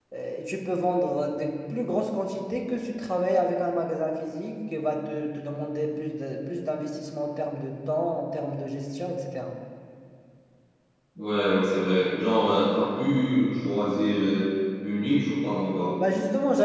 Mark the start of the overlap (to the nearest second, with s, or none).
none